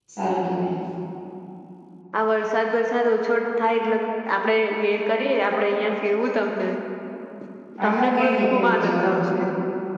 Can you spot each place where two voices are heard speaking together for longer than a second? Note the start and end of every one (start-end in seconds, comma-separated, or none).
7.8-9.2